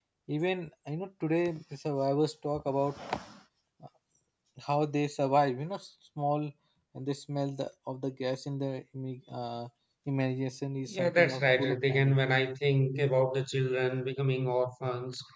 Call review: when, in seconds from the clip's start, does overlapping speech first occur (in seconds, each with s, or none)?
10.8 s